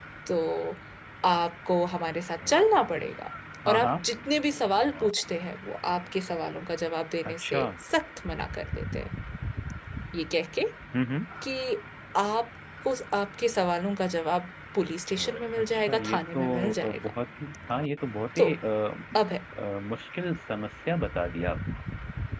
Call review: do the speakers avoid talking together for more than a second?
No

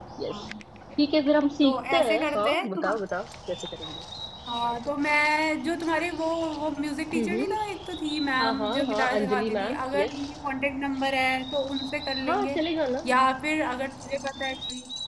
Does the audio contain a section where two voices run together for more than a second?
Yes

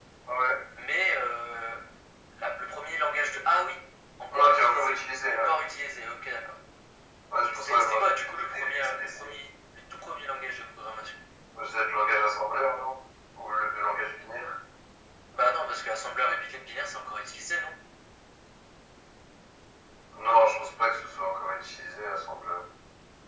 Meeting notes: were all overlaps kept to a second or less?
No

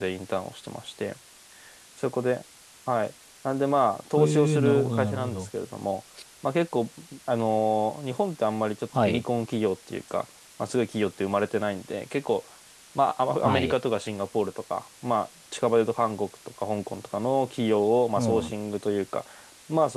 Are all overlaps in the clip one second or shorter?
No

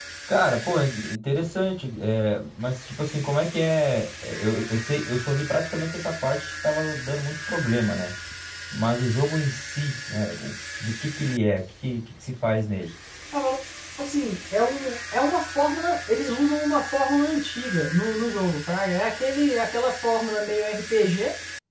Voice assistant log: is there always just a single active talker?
Yes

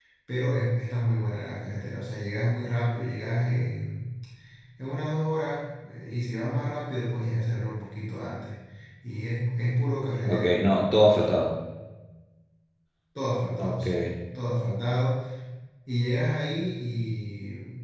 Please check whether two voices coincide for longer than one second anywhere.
No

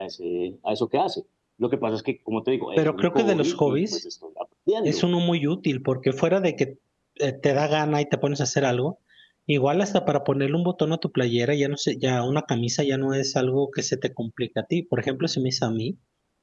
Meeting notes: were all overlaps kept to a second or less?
No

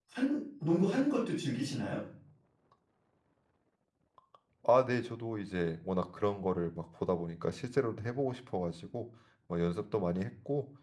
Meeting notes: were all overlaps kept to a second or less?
Yes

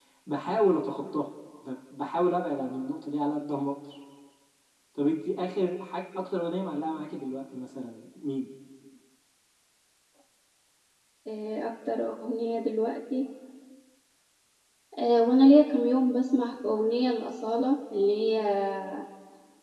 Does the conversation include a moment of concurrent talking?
No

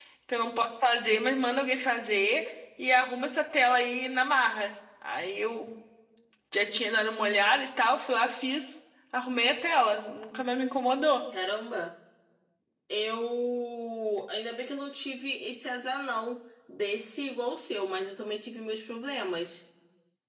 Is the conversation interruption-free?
Yes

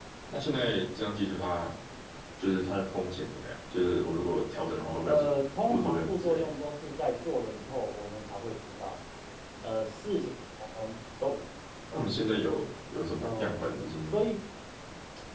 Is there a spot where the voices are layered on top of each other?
Yes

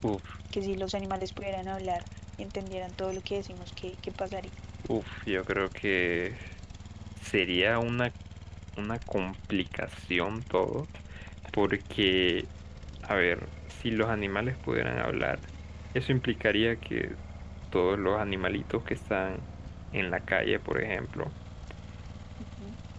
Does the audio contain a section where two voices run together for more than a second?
No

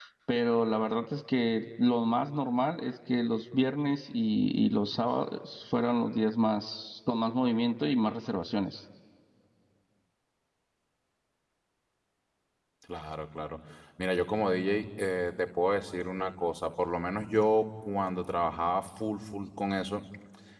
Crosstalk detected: No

